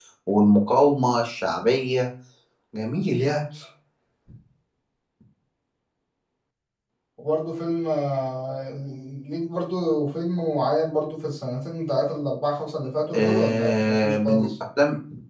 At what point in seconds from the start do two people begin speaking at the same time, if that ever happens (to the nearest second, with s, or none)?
13 s